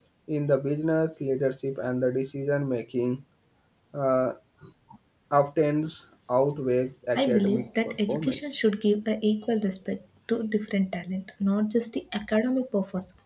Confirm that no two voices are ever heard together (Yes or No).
No